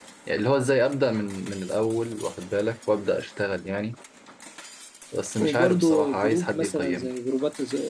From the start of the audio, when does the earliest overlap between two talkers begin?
5.4 s

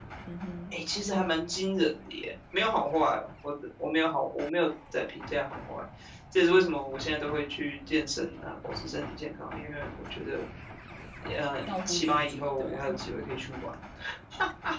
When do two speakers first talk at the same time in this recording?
11.7 s

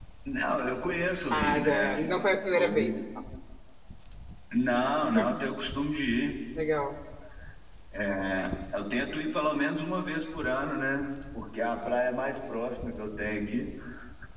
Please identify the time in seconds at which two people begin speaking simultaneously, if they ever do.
1.3 s

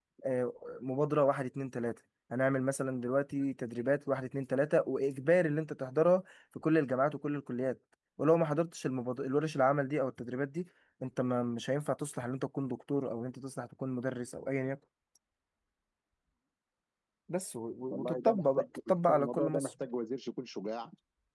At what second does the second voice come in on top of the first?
17.9 s

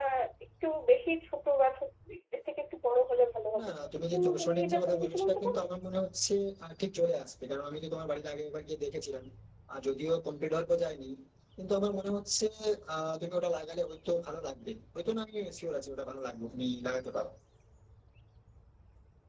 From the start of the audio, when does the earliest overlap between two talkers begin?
3.5 s

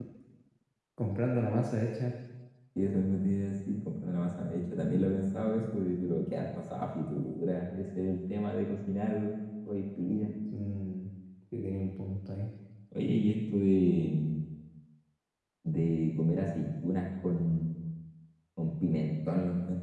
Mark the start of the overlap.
none

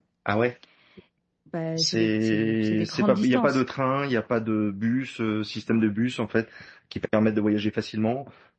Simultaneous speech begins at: 1.8 s

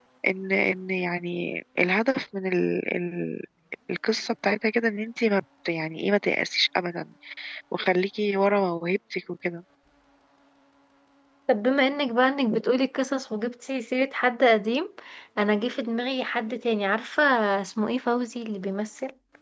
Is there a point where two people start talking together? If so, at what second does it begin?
none

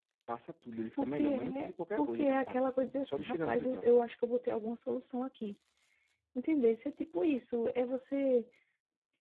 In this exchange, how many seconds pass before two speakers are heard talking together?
1.0 s

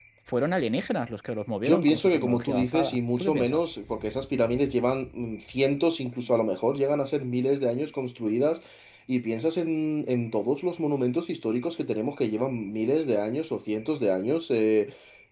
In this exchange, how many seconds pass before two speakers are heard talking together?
1.6 s

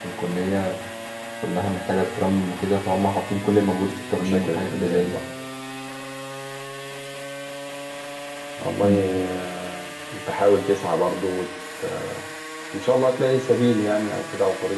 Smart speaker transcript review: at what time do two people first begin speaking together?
3.9 s

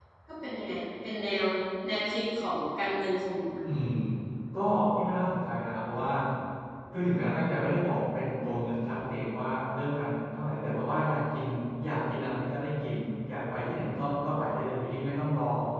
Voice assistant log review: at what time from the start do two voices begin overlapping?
none

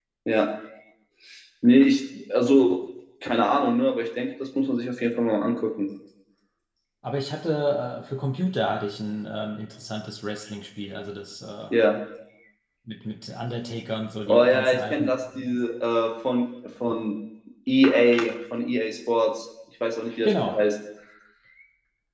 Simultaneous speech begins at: 14.3 s

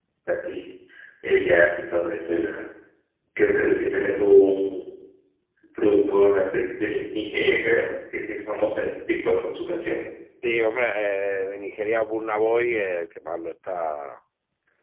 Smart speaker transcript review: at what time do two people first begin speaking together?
none

